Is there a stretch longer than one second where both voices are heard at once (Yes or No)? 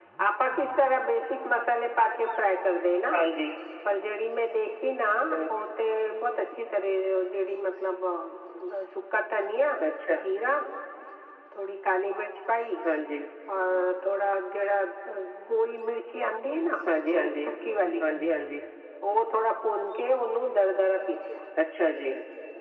No